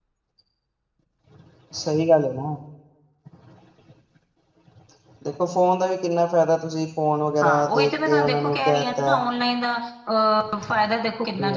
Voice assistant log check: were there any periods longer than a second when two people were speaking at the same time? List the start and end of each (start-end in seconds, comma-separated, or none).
7.4-9.2